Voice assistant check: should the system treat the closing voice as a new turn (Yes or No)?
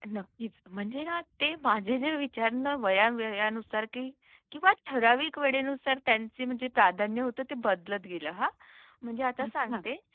No